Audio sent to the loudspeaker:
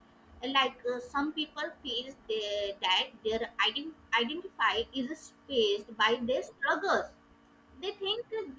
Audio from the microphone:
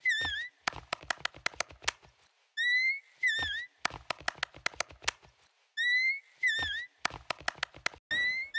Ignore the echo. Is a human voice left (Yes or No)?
No